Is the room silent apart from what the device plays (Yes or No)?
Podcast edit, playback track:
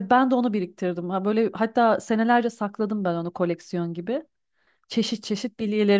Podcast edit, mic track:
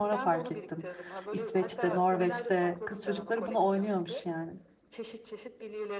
No